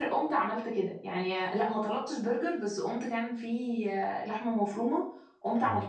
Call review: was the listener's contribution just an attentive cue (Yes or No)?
Yes